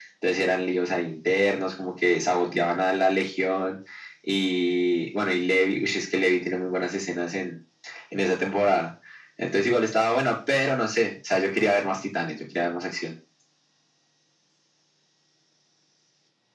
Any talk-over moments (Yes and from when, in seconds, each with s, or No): No